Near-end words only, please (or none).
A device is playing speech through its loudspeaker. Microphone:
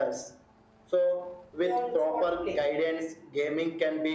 they also want to play.